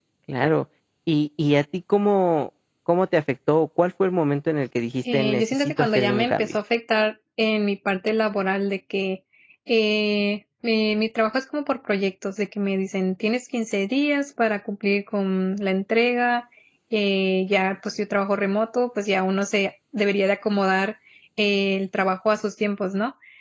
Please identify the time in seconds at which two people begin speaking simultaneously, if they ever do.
5.0 s

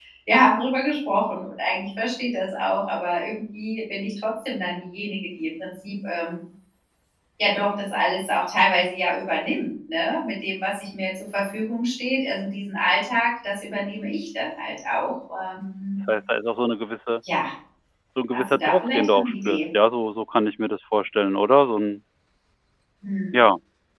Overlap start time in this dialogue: 18.3 s

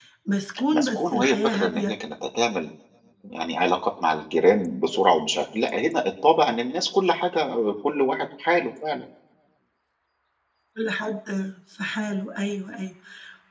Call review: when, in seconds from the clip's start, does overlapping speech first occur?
0.7 s

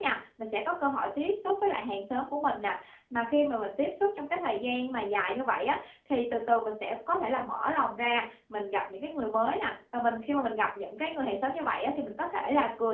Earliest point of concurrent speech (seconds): none

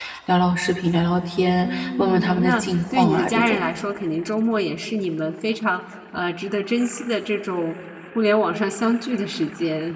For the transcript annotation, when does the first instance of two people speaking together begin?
1.6 s

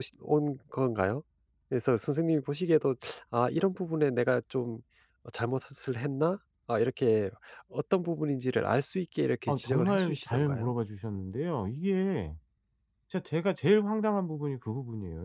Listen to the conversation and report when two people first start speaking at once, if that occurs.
9.5 s

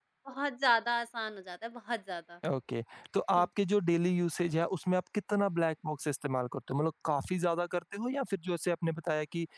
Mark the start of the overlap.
none

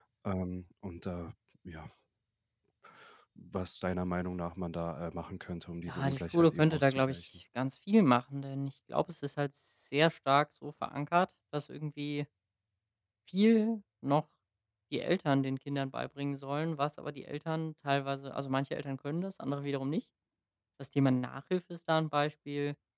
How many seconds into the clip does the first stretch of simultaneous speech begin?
5.9 s

